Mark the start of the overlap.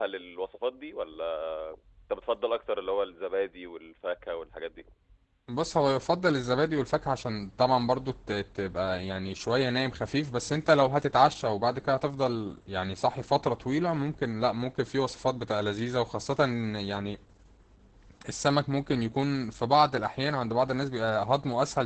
none

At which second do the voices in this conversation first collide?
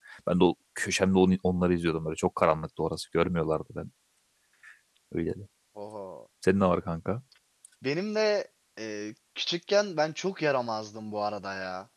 none

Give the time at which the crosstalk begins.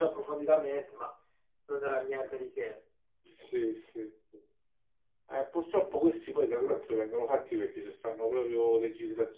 none

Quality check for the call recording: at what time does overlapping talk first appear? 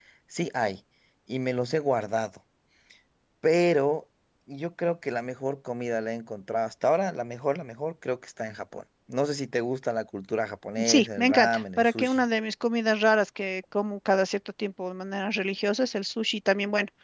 11 s

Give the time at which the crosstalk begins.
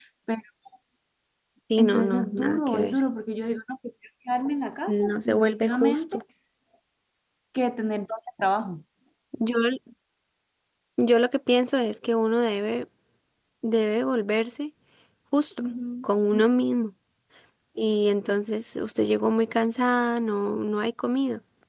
2 s

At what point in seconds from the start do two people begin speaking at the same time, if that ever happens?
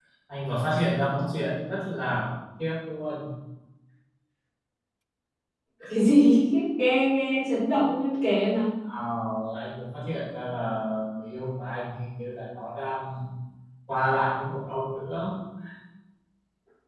none

